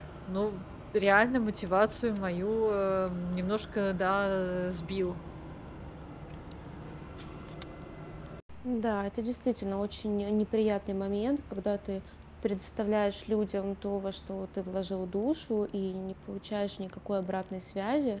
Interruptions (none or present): none